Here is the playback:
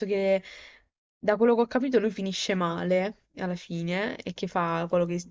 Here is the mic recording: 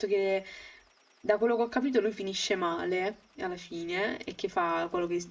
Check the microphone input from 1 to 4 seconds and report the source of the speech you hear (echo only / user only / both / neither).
echo only